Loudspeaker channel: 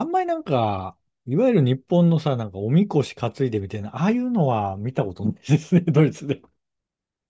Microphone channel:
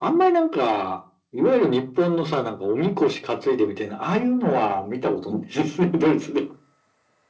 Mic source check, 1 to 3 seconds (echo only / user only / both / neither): echo only